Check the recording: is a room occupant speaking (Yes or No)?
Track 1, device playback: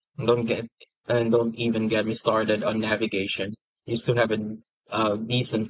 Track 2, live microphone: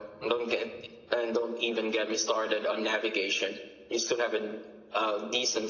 No